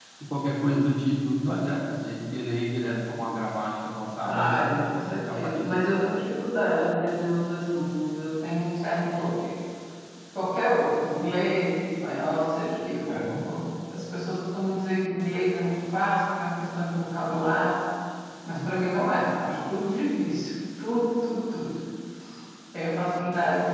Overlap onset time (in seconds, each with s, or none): 4.2 s